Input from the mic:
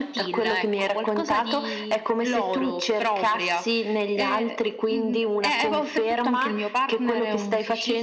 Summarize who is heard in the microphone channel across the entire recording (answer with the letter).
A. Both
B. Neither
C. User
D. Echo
D